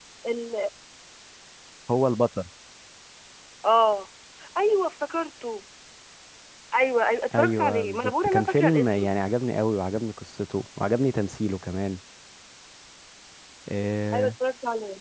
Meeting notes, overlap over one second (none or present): present